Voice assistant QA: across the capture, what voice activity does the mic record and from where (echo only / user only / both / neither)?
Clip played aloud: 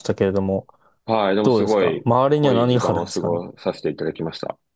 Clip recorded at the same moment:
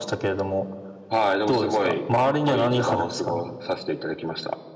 echo only